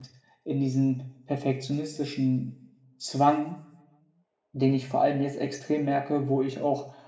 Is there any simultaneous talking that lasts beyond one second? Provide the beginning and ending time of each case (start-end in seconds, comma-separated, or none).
none